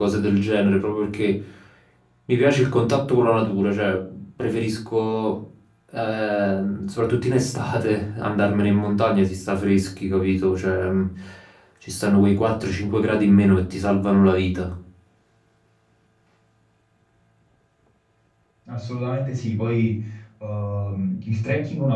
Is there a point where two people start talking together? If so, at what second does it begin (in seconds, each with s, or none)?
none